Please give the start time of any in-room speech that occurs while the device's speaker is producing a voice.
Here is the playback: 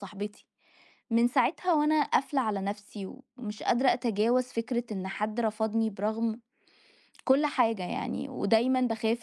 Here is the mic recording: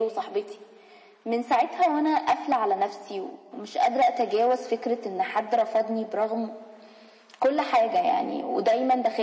none

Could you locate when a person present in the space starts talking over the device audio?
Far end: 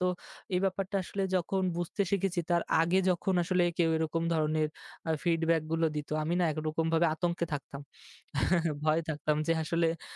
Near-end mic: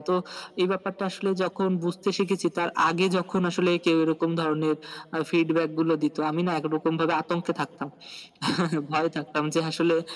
none

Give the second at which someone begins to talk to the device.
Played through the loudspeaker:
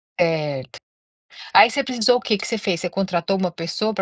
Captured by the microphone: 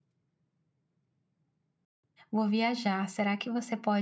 2 s

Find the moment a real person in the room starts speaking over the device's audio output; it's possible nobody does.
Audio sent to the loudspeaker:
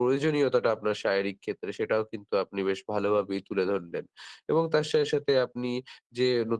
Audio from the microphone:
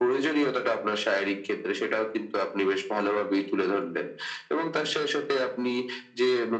none

